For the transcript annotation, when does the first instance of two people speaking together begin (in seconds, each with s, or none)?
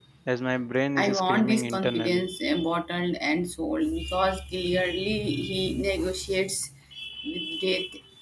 1.0 s